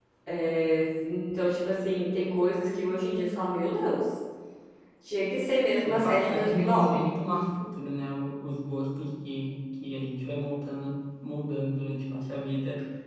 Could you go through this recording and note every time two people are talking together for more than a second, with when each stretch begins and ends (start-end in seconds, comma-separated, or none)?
5.8-7.1